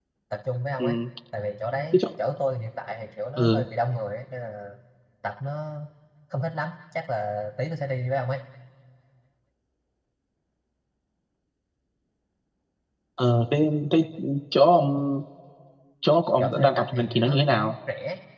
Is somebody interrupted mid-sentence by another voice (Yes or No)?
Yes